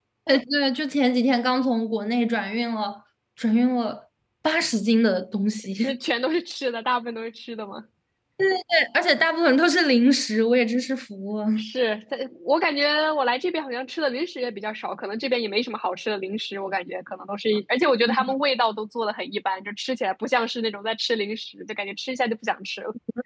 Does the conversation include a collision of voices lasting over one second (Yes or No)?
No